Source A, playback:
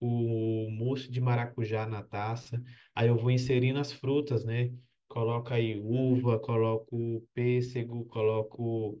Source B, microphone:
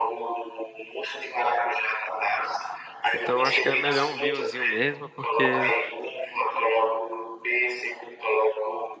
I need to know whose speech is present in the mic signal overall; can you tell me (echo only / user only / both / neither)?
both